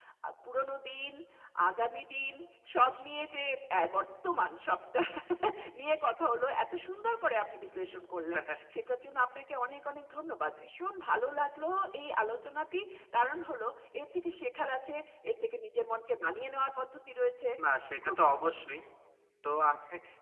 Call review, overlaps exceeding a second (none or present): none